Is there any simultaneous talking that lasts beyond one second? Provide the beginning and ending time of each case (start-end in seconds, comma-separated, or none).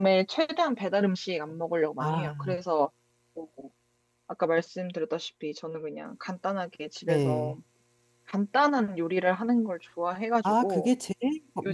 none